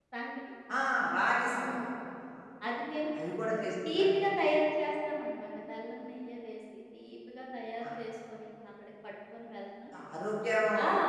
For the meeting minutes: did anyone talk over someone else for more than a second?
No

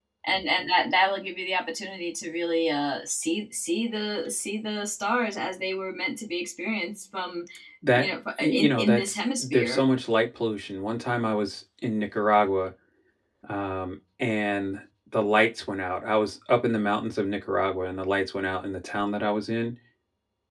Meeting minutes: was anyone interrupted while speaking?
Yes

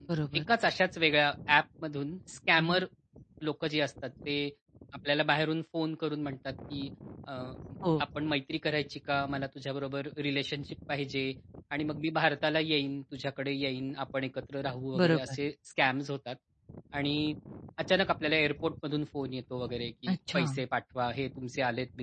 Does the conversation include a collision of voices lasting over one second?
No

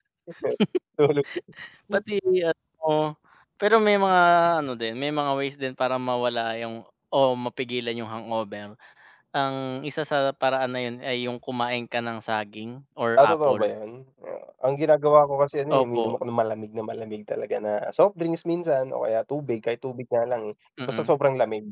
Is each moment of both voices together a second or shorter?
Yes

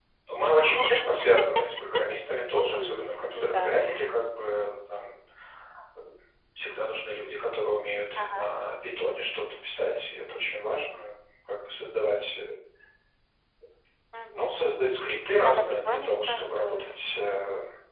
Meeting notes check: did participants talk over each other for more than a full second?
Yes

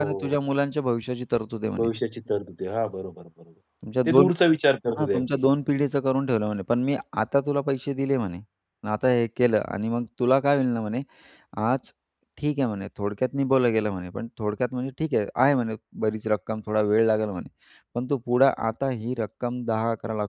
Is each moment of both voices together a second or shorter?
Yes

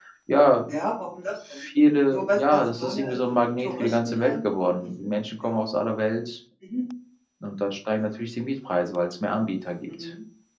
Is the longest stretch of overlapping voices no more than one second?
No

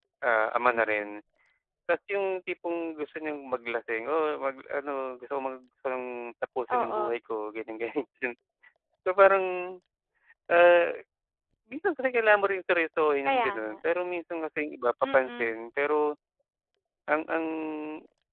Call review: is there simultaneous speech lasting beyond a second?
No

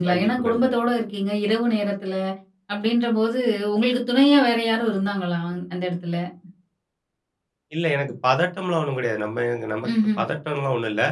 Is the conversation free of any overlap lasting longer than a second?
Yes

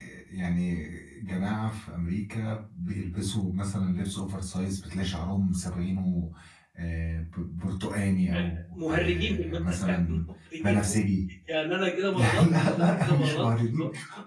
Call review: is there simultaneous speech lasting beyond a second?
Yes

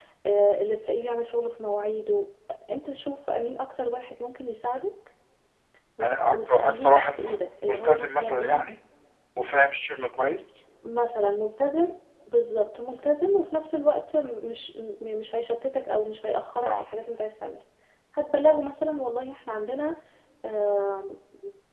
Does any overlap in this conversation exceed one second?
Yes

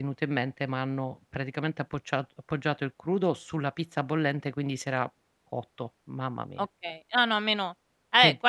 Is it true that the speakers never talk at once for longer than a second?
Yes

